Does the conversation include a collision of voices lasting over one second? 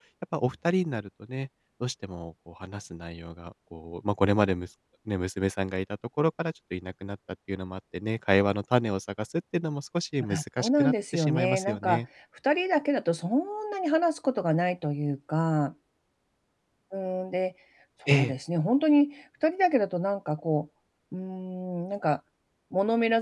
Yes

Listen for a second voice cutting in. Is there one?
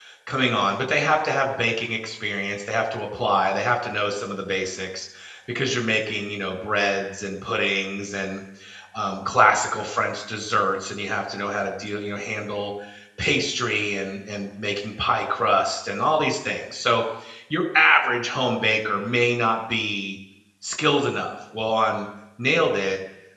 No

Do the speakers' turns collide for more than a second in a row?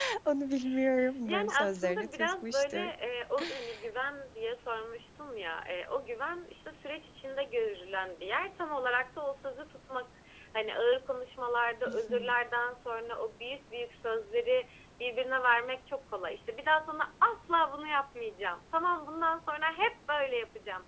Yes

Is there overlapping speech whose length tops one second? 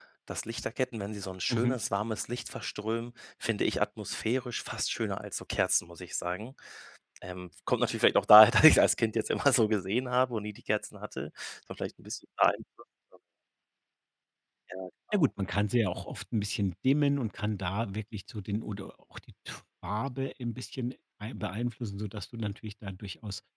No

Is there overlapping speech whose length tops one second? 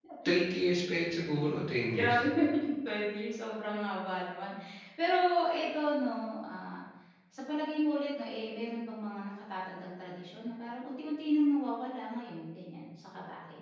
No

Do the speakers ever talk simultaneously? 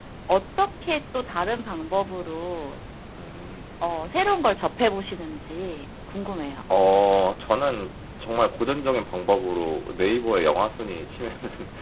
No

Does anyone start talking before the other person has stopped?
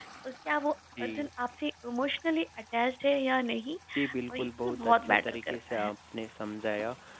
Yes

